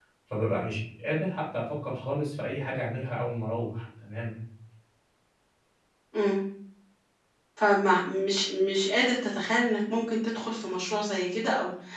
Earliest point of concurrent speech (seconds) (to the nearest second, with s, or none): none